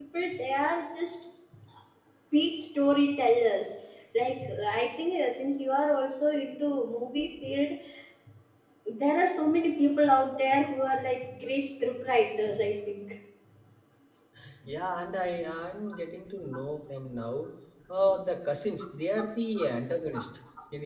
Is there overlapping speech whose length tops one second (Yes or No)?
No